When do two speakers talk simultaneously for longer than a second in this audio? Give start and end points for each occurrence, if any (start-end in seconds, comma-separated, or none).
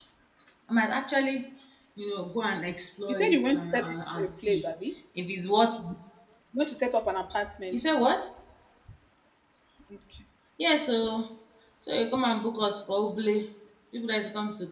3.1-4.7